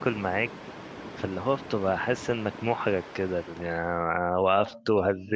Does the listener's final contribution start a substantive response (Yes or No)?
No